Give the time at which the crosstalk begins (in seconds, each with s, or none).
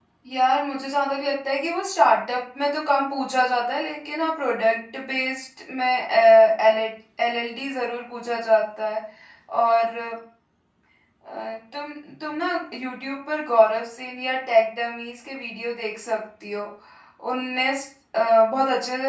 none